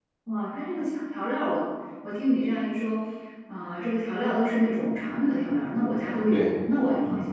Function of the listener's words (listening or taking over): taking over